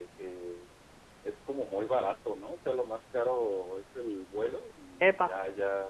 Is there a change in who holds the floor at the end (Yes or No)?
No